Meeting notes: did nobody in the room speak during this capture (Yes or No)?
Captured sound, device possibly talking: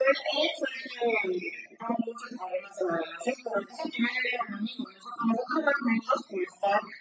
Yes